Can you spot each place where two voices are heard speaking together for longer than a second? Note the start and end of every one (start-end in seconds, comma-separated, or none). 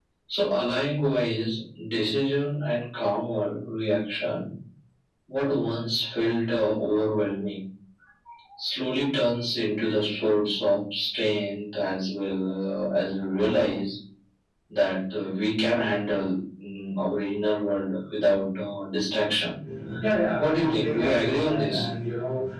20.4-21.9